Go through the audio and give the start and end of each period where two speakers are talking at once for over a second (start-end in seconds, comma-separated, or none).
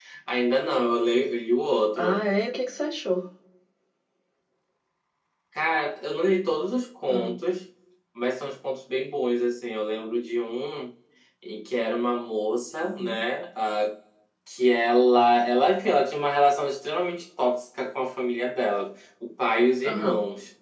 none